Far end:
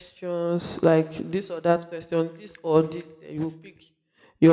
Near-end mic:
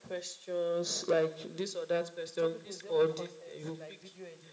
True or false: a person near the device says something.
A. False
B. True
B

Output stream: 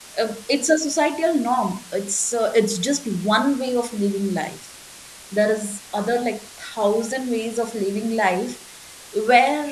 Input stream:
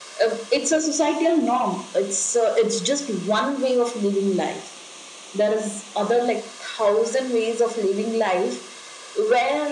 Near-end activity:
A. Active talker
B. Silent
B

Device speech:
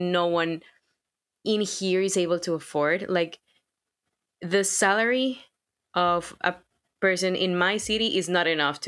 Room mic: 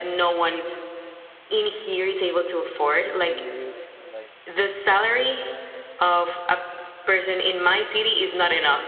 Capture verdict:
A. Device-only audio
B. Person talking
B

